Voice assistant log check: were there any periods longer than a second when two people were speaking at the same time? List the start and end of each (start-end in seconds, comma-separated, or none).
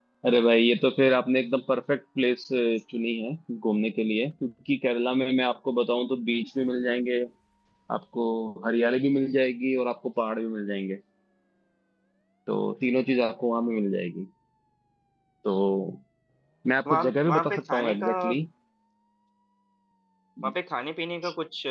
16.9-18.3